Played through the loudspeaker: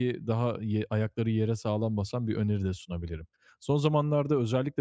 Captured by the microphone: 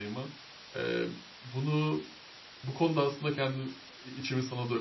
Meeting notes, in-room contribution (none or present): present